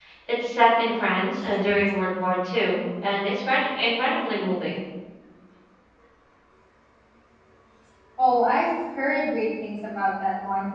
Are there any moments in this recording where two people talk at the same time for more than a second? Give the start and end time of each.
none

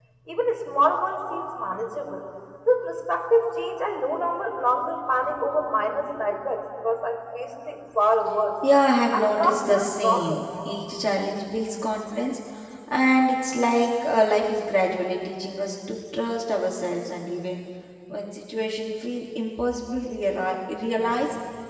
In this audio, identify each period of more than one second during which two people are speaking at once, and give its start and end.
9.1-10.4

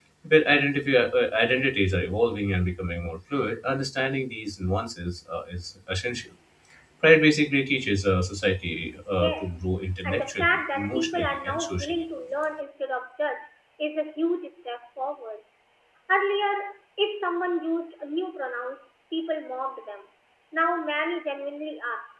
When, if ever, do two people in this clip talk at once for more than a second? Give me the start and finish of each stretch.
10.0-12.0

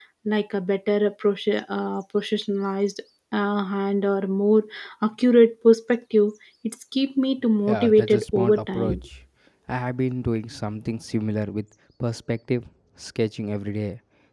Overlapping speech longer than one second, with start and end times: 7.6-9.0

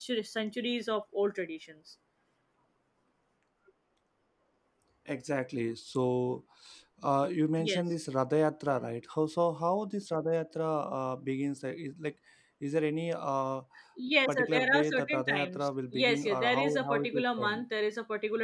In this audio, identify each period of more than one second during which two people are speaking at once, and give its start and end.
14.3-17.6

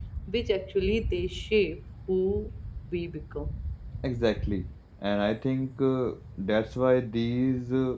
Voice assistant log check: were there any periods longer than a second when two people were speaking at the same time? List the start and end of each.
none

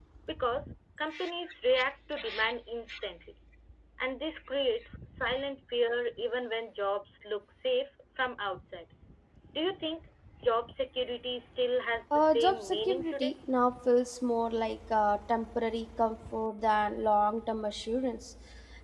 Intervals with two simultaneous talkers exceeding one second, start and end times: 12.1-13.3

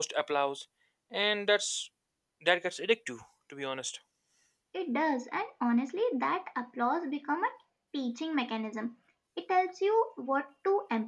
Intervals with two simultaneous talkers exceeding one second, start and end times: none

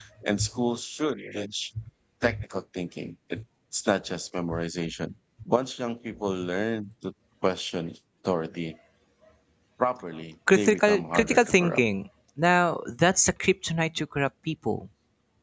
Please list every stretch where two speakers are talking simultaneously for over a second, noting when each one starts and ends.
10.5-11.8

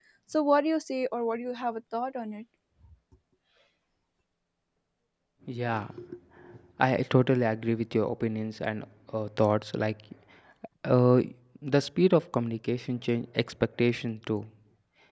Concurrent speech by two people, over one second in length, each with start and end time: none

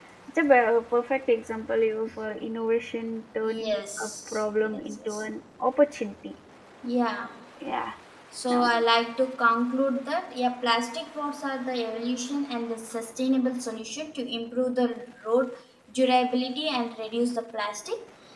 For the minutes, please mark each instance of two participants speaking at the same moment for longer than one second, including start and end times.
3.4-5.2

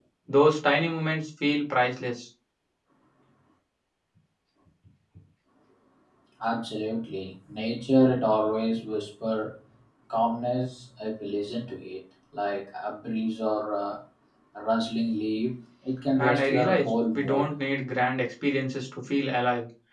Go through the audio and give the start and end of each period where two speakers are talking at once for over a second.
16.2-17.5

